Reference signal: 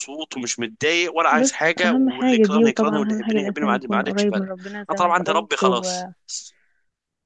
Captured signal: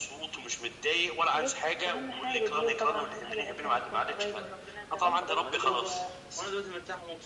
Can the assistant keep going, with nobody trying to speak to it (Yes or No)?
No